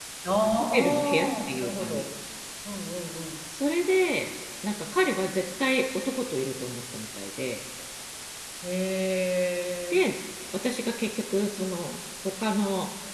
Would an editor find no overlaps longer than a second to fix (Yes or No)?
No